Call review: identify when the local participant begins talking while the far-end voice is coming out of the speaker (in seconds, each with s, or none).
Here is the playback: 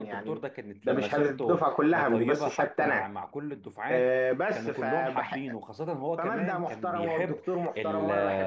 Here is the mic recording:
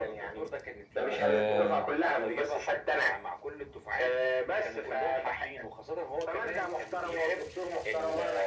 1.2 s